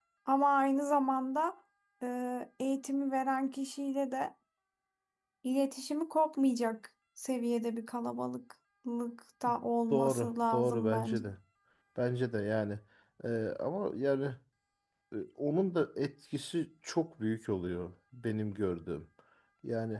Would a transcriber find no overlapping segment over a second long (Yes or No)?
No